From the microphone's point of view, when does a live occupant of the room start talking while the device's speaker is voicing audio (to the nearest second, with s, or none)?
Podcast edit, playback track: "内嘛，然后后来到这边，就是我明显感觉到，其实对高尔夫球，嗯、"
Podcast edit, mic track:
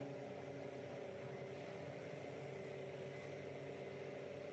none